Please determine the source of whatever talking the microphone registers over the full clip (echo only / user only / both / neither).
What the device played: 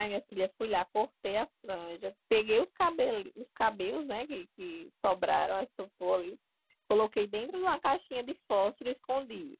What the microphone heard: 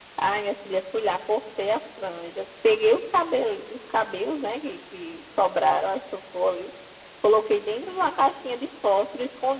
echo only